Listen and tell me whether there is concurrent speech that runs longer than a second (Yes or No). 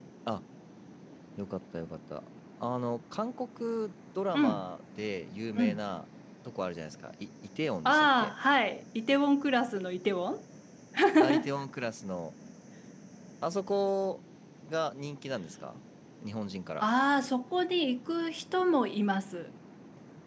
No